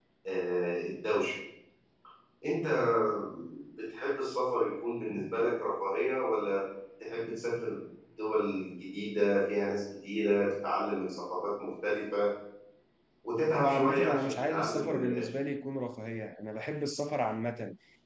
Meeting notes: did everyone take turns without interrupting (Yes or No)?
No